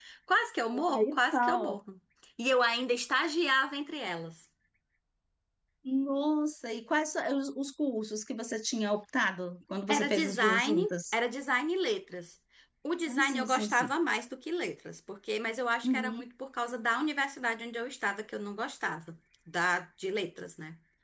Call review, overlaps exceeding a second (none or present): present